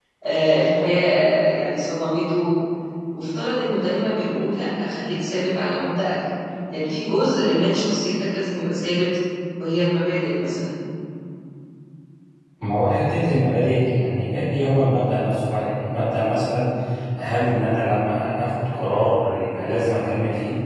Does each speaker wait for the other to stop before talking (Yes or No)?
Yes